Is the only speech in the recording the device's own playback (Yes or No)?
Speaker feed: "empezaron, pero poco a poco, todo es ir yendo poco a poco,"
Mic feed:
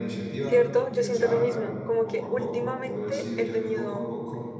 No